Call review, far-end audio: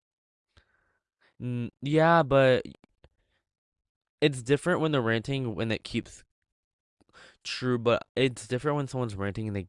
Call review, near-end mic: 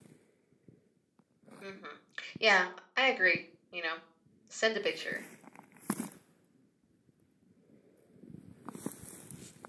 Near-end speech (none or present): present